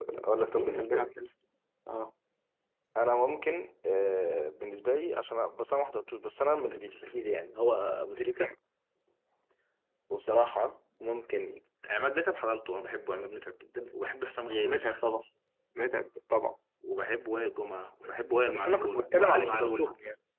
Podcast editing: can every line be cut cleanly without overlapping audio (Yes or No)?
No